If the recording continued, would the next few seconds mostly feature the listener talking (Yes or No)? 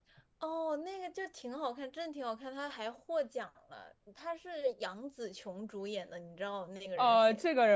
Yes